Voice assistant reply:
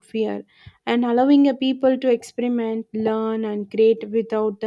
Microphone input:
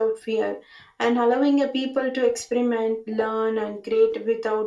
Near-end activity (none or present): none